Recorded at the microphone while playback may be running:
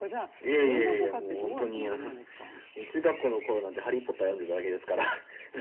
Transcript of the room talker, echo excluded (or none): none